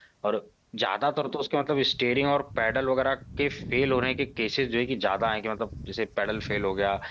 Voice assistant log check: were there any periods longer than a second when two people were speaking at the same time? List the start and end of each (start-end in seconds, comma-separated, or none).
none